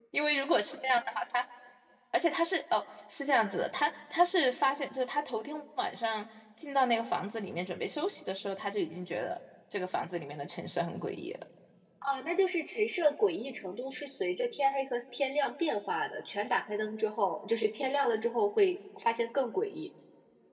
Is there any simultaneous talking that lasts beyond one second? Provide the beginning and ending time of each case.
none

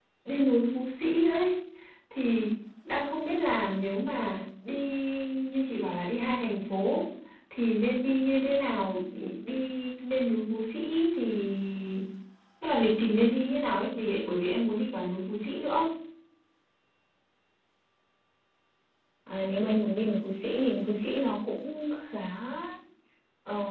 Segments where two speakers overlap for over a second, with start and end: none

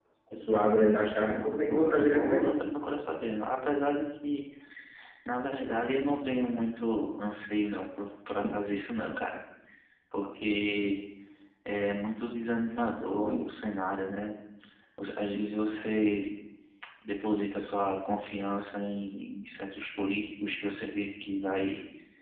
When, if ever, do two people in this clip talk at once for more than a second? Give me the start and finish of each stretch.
1.2-2.5

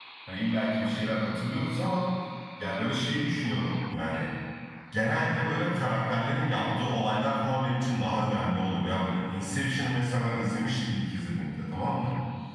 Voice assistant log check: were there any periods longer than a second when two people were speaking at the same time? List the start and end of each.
none

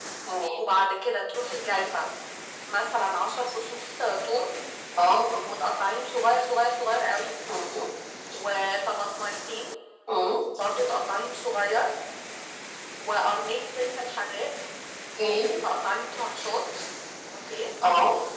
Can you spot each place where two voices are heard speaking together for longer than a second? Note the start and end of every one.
none

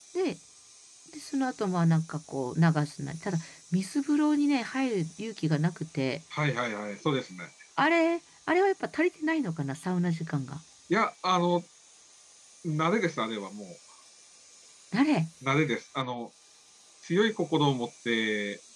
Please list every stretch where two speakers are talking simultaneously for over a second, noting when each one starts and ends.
none

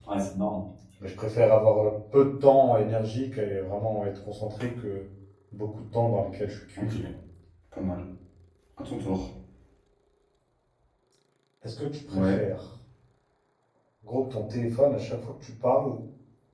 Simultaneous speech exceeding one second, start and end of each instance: none

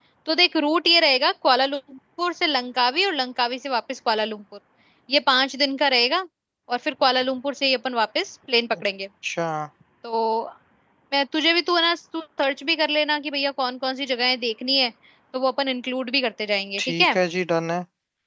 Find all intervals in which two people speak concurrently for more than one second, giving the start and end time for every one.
none

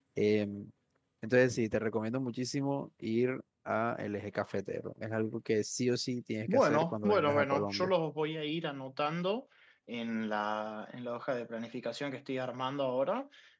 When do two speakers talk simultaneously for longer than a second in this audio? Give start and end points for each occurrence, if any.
6.5-7.9

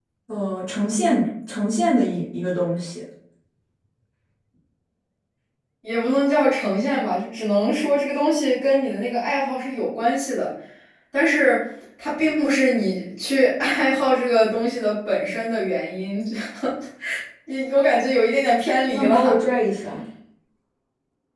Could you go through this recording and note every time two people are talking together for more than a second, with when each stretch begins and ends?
none

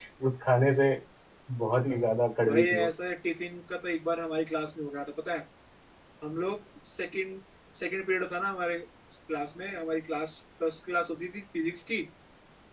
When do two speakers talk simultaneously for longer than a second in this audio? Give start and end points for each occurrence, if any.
none

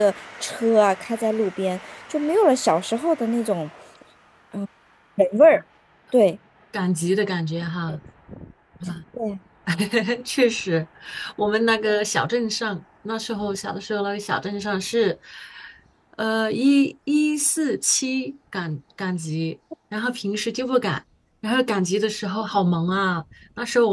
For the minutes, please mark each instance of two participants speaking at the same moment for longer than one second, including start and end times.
none

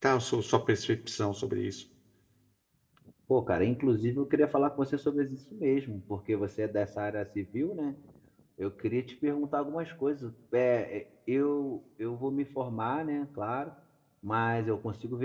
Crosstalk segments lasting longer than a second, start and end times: none

